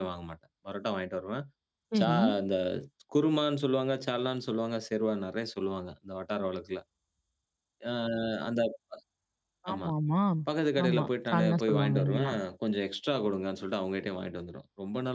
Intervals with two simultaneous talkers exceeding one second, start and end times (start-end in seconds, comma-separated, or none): 10.8-12.4